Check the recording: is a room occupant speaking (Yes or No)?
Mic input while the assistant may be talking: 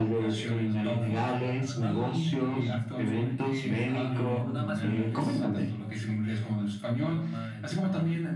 Yes